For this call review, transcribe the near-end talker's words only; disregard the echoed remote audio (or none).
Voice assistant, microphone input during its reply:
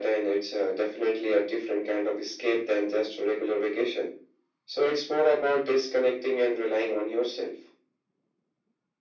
none